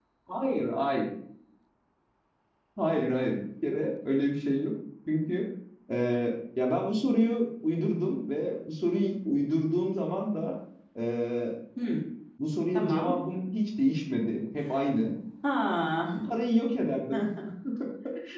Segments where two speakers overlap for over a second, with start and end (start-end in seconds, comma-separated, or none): none